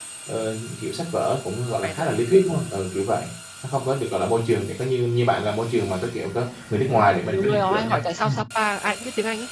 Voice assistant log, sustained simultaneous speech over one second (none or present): present